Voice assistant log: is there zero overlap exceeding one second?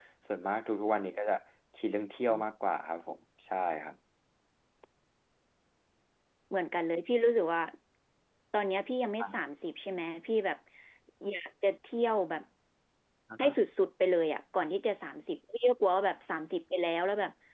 Yes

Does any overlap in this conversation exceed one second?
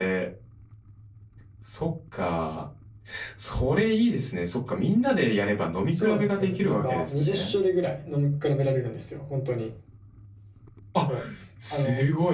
Yes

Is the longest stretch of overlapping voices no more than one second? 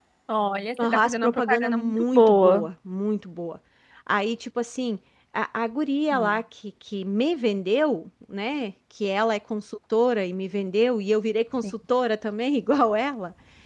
No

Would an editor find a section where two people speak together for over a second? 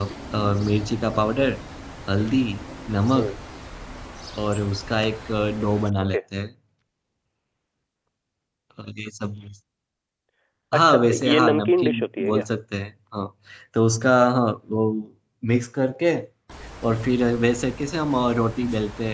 Yes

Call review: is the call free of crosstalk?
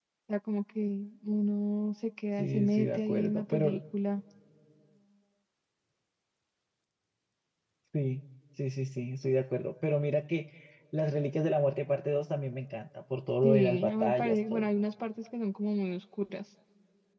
No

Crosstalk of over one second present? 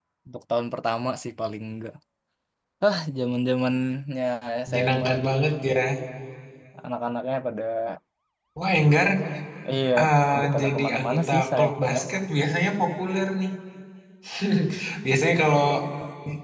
Yes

